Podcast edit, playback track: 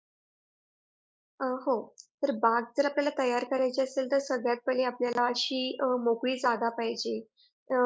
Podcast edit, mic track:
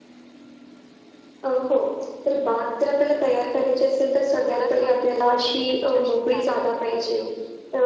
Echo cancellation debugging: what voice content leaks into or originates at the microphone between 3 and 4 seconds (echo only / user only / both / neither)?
echo only